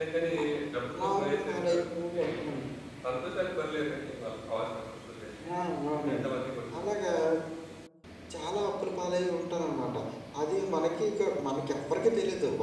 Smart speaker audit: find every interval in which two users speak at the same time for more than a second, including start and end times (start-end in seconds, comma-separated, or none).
1.0-2.2